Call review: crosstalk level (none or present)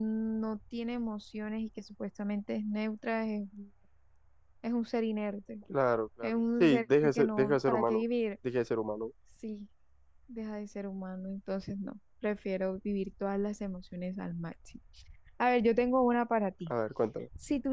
present